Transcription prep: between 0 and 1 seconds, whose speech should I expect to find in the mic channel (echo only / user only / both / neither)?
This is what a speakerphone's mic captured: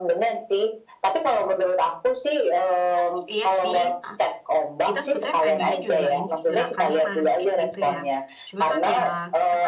echo only